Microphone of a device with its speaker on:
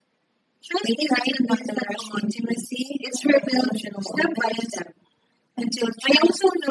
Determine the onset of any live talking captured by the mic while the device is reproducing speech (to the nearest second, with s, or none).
none